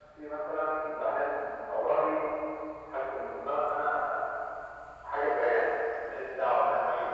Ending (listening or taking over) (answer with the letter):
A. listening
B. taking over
A